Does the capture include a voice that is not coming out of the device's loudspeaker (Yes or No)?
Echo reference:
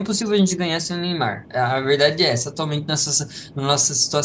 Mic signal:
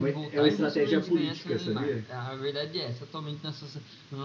Yes